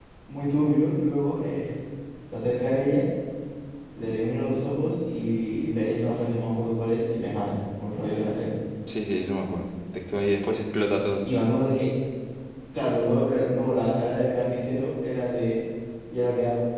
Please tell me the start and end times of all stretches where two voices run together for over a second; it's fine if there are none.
none

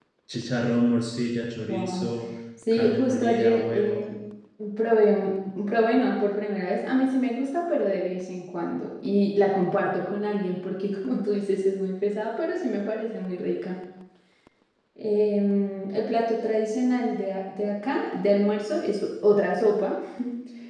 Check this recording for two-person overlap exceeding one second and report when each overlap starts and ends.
2.7-4.0

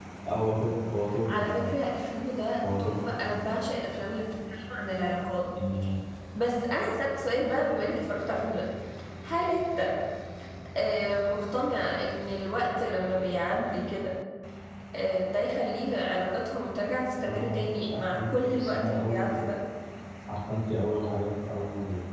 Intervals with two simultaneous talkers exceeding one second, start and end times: 17.2-19.3

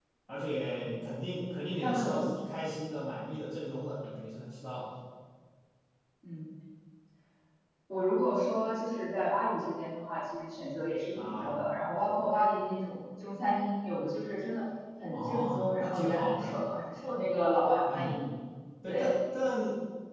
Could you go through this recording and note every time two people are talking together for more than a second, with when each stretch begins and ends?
15.1-16.6

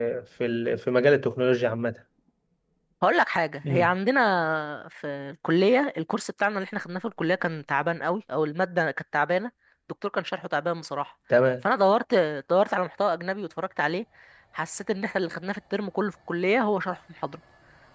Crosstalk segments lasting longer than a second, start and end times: none

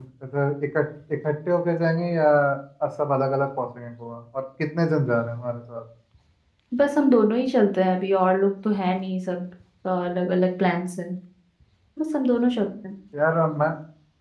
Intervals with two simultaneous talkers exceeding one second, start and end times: none

